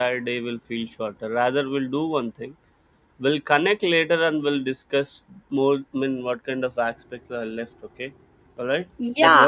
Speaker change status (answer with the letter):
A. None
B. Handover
B